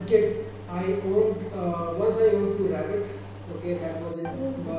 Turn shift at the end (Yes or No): No